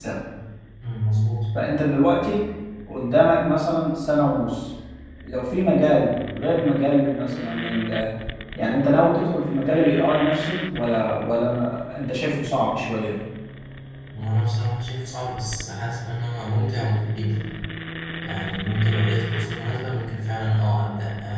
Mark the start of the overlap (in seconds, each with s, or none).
none